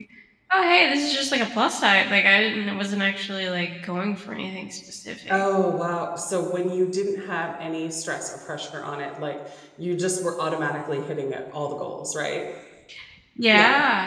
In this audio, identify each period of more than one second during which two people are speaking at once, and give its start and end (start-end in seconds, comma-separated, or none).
none